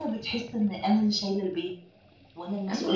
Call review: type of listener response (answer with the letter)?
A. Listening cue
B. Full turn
B